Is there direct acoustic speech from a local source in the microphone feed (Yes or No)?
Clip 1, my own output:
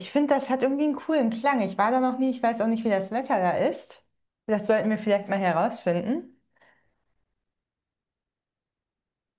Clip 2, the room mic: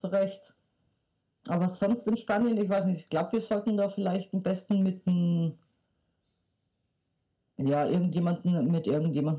Yes